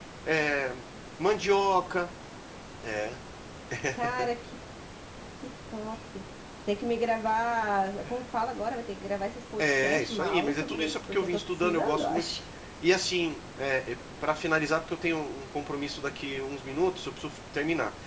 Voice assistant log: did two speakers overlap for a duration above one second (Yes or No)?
Yes